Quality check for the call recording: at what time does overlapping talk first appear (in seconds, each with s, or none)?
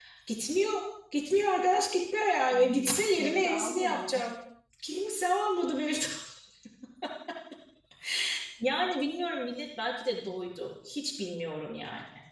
2.5 s